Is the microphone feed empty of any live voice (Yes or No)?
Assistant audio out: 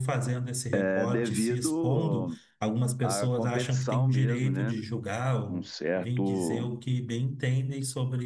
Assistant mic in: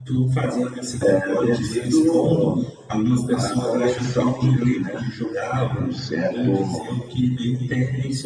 Yes